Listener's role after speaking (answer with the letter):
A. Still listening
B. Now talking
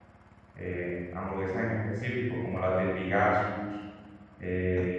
A